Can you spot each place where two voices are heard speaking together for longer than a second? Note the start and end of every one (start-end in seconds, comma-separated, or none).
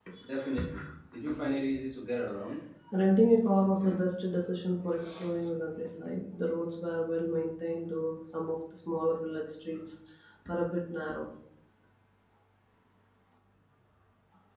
none